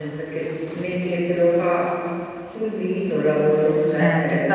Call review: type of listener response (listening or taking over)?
taking over